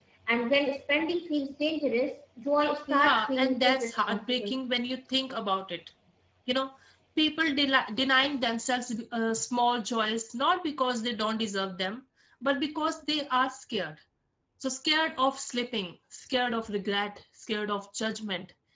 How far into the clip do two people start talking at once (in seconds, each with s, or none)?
2.9 s